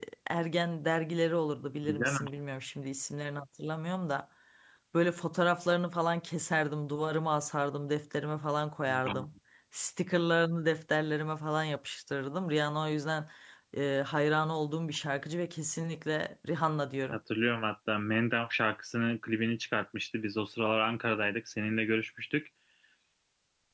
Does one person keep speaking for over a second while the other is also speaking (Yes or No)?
No